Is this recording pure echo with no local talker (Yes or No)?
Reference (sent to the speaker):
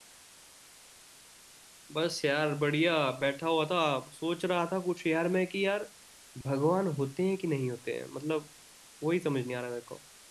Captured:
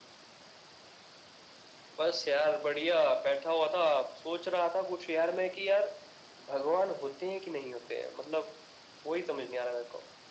Yes